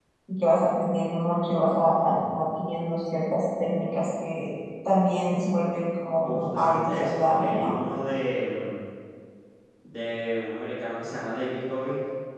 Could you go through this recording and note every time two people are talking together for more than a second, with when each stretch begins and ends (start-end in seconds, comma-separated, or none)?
6.2-7.7